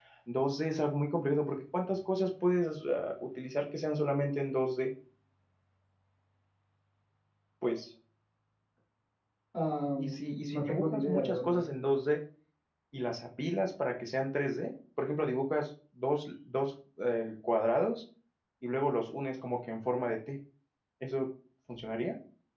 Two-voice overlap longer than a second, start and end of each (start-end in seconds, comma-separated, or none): 10.0-11.6